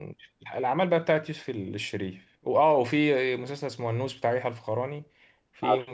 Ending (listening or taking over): listening